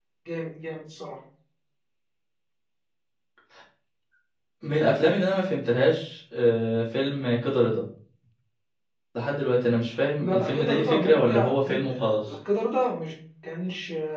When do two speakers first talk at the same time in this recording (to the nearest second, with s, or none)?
10 s